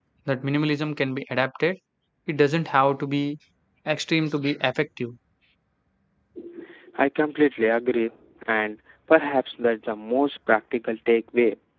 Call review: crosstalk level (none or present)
none